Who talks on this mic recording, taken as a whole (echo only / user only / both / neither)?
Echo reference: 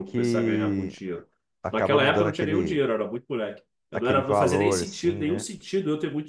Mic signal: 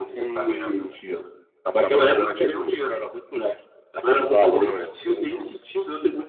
echo only